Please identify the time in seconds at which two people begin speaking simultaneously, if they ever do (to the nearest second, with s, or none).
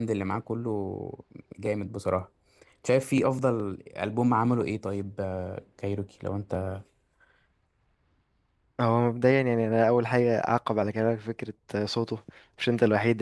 none